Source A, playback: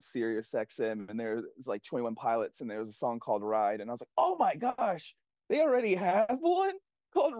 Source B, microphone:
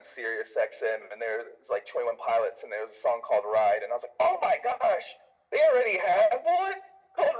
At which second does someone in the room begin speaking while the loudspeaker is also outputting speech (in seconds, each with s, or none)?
none